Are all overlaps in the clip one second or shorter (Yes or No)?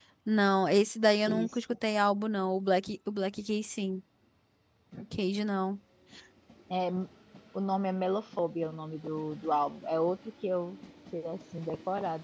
Yes